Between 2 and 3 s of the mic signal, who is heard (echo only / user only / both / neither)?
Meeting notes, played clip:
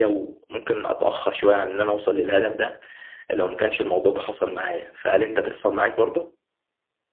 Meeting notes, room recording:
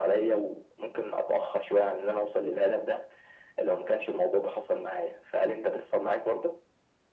echo only